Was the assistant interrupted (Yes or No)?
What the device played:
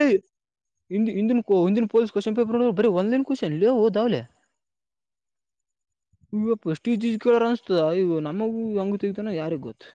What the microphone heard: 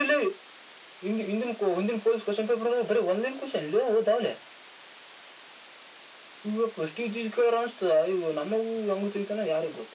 No